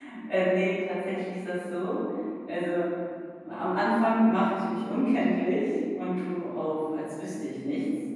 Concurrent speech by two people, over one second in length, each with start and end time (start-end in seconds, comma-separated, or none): none